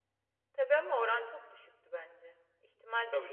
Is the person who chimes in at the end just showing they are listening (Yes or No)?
No